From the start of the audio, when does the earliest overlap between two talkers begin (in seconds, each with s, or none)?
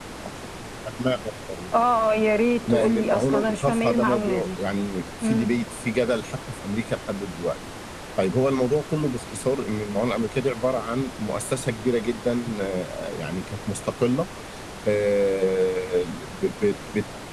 2.7 s